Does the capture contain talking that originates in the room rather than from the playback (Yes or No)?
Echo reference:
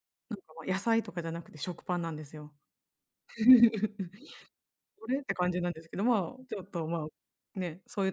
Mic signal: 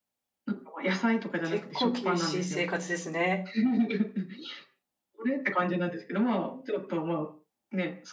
Yes